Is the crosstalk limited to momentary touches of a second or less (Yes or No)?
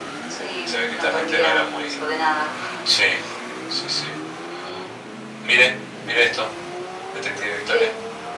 No